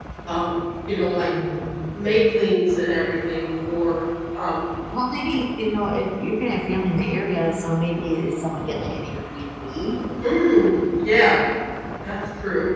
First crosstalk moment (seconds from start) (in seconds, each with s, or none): none